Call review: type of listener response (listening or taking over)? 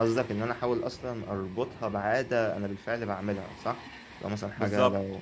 listening